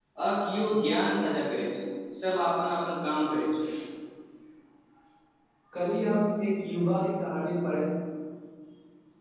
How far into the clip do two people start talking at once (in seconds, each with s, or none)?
none